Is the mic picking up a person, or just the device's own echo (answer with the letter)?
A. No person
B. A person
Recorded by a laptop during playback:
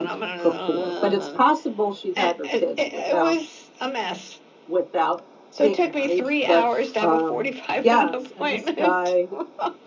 B